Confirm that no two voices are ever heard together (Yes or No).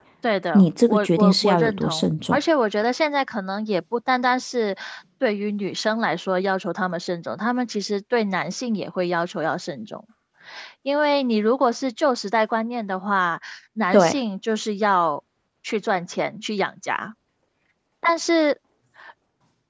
No